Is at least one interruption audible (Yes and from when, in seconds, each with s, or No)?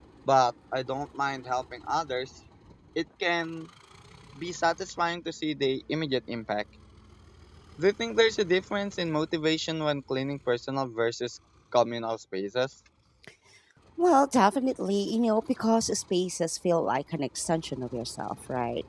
No